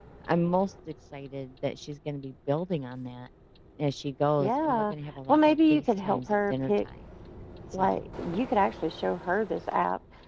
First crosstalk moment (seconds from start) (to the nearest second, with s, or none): 4 s